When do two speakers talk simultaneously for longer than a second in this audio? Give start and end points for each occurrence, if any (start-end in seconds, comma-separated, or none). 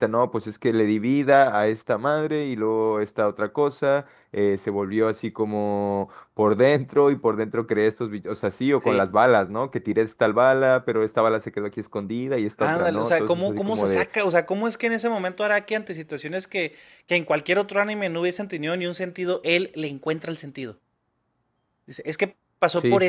12.6-14.1